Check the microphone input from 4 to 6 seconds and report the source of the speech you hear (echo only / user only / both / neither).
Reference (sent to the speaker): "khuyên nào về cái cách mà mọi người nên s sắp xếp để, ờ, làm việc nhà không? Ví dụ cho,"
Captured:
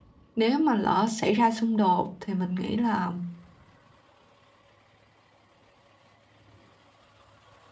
neither